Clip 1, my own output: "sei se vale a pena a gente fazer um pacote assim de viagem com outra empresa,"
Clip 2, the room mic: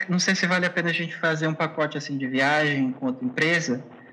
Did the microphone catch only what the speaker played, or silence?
Yes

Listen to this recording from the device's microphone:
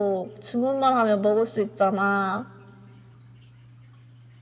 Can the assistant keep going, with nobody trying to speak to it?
Yes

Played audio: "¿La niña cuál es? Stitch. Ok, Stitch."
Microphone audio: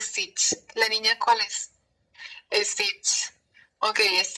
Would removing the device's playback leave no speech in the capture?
Yes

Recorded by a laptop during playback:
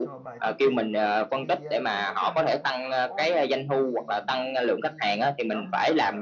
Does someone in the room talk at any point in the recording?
Yes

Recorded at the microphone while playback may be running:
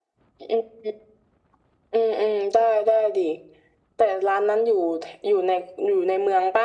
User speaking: No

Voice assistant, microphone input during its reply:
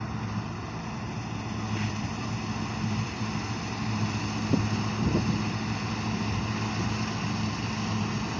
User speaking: No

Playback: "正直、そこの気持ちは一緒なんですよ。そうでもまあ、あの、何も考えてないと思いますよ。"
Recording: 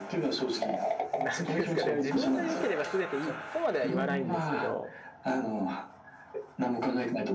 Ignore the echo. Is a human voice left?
Yes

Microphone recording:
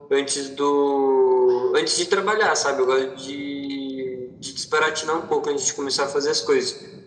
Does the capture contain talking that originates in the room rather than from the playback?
No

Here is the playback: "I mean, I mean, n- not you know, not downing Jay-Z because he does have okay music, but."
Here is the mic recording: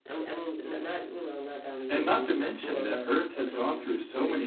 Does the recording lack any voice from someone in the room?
No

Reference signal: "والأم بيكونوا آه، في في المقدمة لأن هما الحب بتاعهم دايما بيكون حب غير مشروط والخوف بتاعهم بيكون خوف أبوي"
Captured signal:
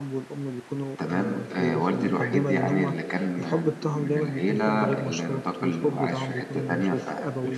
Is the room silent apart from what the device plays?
No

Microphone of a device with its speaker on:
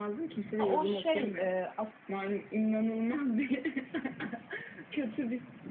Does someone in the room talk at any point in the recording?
Yes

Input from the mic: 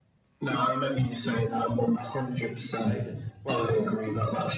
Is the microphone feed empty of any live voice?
No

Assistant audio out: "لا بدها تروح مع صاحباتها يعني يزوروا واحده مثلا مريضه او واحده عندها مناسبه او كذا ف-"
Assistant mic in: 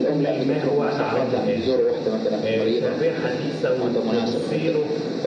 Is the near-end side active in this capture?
Yes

